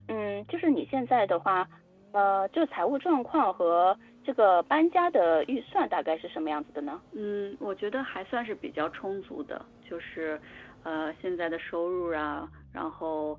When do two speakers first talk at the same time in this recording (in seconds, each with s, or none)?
none